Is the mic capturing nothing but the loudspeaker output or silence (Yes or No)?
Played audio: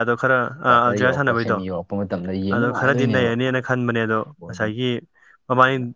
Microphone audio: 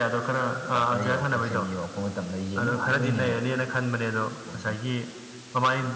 Yes